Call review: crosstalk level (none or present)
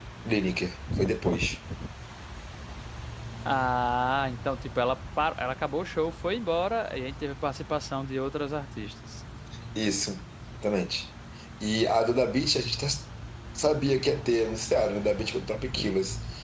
none